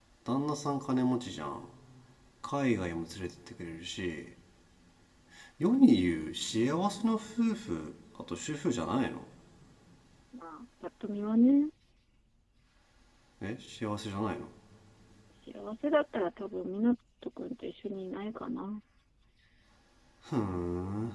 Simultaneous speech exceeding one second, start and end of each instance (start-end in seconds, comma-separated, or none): none